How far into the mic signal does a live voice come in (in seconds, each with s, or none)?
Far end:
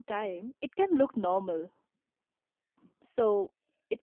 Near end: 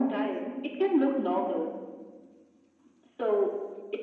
none